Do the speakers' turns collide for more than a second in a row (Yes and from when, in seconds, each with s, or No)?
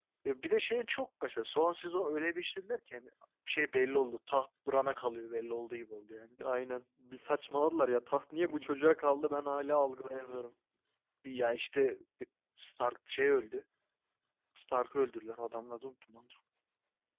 No